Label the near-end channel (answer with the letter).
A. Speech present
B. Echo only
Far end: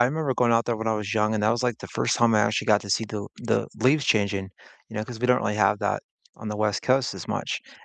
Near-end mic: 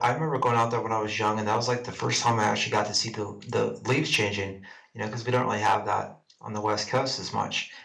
B